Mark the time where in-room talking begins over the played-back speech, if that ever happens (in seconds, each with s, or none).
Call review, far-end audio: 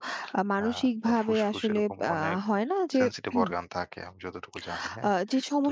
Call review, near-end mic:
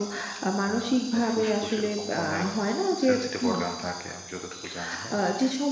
none